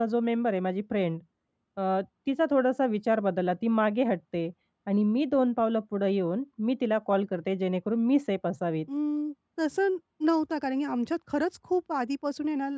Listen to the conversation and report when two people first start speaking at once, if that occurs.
none

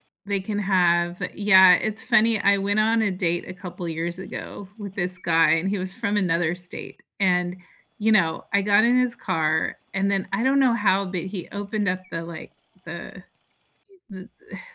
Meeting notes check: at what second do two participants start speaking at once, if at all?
none

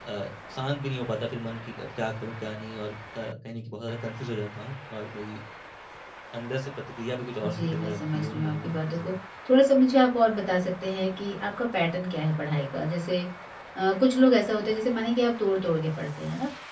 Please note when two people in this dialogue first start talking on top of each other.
7 s

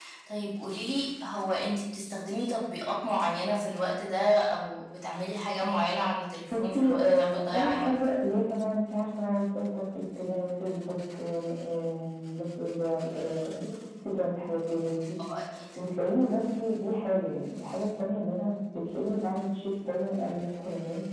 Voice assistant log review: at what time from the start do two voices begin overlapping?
7 s

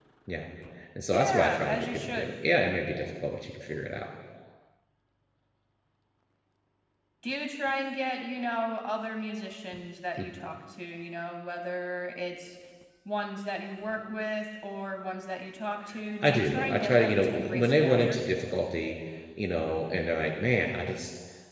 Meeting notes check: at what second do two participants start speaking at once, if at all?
1 s

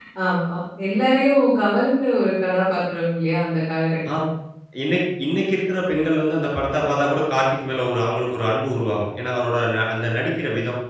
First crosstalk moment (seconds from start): none

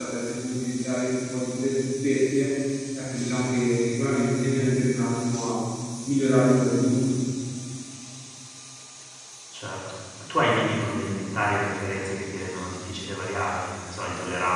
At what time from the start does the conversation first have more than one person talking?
none

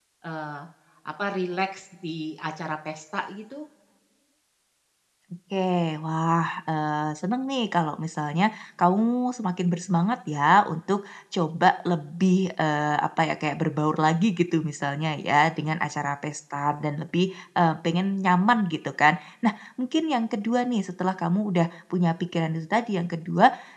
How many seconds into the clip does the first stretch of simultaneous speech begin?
none

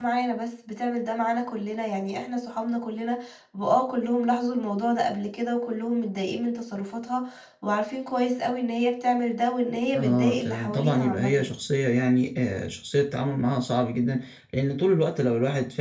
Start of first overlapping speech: 10 s

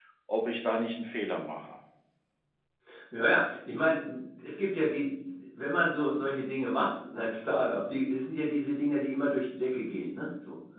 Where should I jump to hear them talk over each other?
none

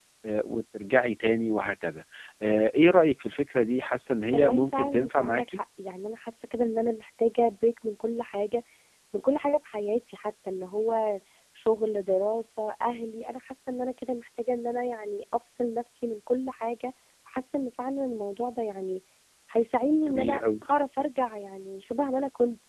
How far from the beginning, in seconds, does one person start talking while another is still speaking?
4 s

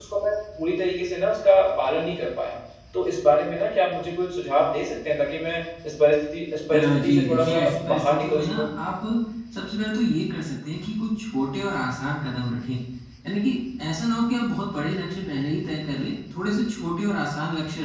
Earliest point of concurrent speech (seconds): 7 s

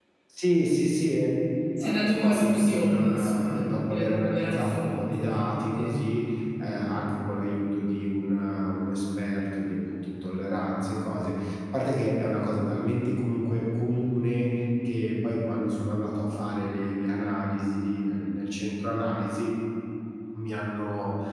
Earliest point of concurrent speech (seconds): 2 s

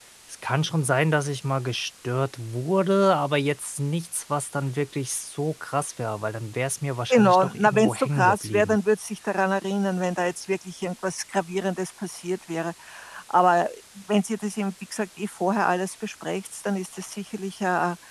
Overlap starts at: 7 s

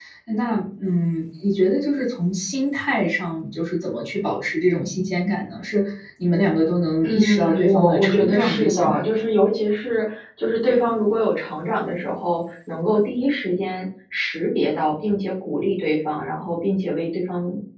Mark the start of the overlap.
7 s

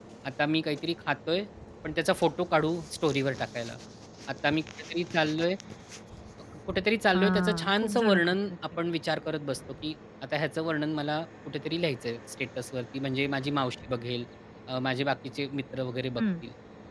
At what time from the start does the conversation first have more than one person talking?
7 s

